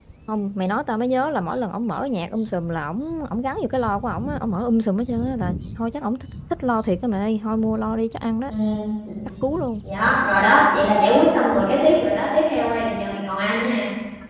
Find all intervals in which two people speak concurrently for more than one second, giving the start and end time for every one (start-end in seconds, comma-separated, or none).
none